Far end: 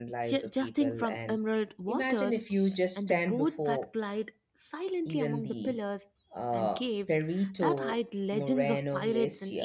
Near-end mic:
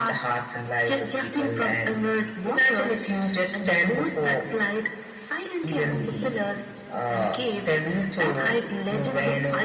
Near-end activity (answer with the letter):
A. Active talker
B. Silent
B